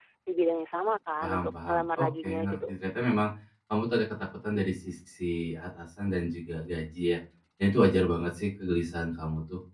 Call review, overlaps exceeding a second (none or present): present